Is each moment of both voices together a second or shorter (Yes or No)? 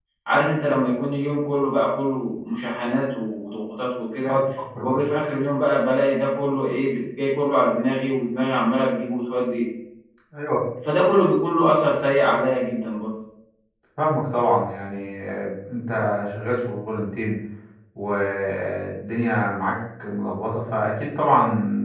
Yes